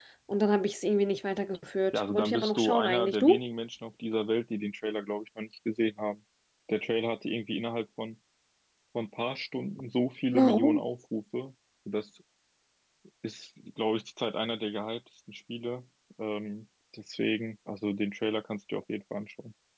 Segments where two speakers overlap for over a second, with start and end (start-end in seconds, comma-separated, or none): 1.9-3.4